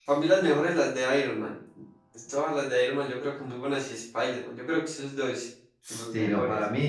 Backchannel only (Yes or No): No